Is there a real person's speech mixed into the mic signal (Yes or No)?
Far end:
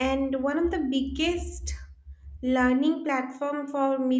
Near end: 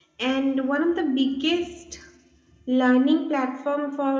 No